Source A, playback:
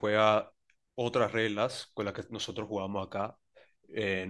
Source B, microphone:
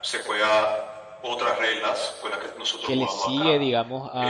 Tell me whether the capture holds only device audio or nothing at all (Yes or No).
No